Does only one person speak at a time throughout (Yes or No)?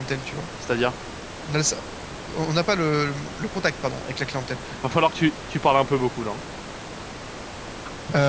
Yes